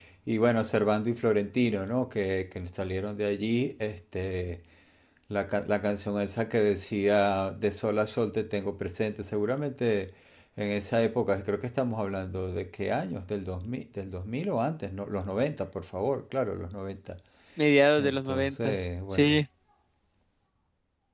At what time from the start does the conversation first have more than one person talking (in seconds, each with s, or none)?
18.0 s